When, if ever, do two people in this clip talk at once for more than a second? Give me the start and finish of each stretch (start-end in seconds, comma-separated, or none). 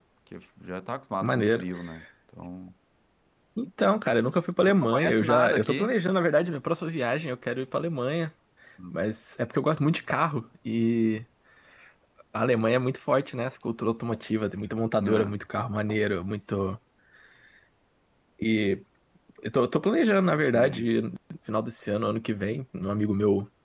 4.6-5.9